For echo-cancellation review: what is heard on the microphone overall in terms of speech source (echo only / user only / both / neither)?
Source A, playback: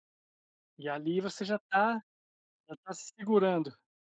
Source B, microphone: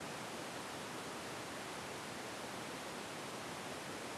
neither